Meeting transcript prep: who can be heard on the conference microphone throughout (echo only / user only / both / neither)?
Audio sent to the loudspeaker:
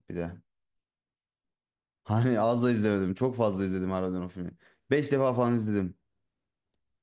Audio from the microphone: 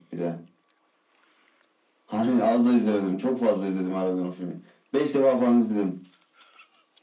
echo only